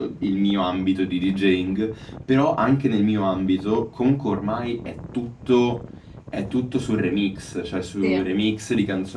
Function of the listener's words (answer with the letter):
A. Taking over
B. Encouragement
B